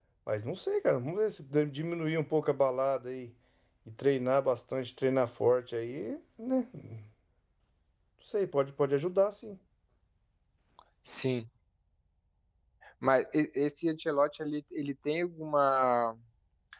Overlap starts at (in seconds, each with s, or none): none